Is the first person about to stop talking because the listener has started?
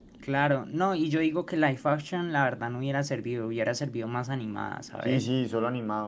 Yes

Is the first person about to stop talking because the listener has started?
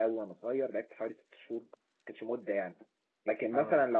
No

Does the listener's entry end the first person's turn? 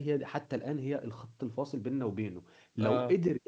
No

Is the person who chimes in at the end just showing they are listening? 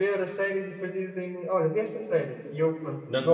No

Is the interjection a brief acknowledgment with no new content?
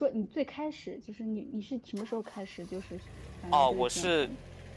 No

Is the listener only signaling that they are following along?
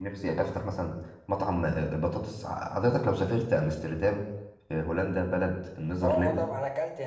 No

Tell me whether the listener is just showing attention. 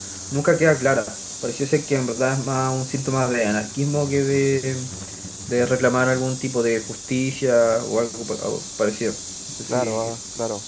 No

